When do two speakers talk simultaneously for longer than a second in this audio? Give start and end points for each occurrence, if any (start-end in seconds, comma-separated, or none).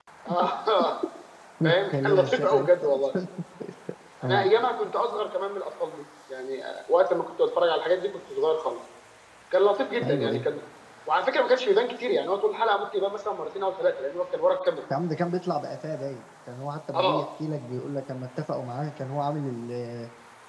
1.6-3.0